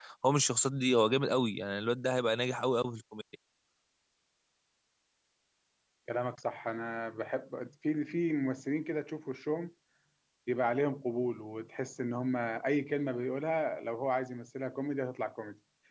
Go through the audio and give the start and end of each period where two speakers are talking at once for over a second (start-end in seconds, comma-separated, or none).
none